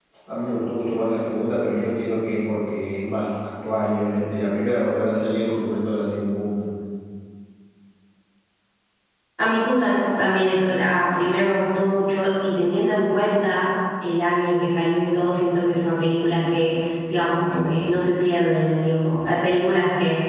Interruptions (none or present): none